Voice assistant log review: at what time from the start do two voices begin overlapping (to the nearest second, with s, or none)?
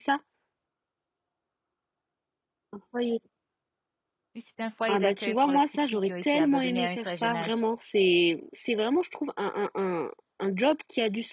5 s